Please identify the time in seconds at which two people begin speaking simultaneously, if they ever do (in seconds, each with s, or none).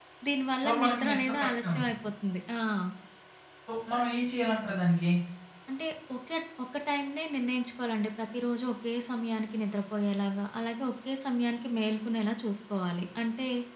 0.6 s